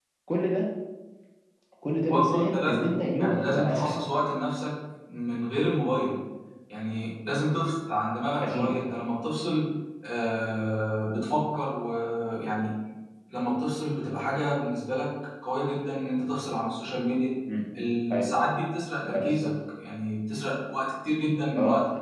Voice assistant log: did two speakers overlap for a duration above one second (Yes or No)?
Yes